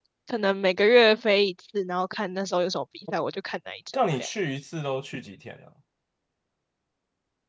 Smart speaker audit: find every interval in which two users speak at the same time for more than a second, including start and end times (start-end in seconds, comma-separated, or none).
none